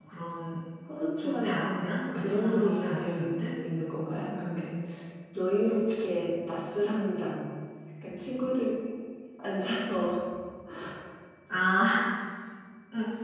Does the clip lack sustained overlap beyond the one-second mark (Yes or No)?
No